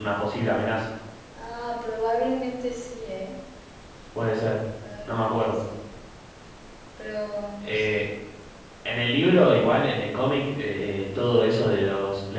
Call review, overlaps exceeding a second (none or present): none